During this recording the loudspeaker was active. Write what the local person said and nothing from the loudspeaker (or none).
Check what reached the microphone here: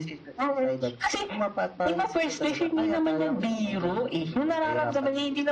none